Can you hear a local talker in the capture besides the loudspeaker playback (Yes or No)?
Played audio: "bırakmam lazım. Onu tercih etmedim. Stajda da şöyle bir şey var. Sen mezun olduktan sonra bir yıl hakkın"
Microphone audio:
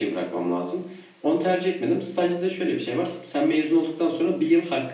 No